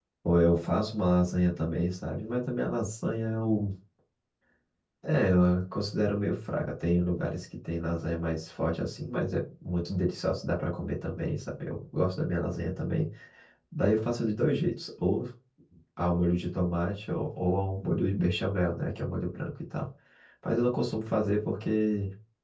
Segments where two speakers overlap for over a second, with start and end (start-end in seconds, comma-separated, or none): none